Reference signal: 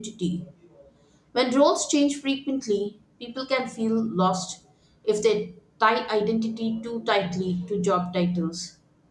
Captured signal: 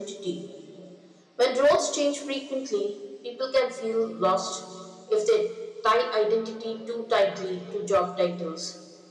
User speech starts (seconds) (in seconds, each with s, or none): none